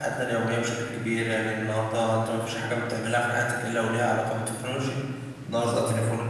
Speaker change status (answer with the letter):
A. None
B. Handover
A